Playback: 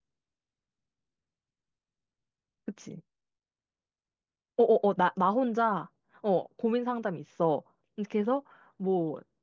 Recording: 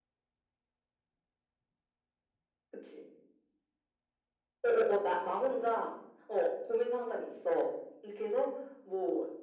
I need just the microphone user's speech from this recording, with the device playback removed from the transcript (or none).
none